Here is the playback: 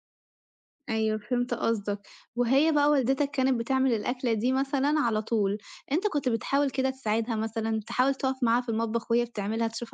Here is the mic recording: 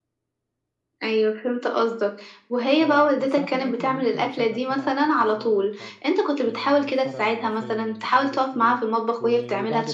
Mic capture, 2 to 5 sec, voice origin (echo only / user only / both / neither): both